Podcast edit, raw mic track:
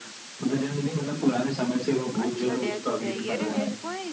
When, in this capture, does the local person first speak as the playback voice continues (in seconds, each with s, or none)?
2.2 s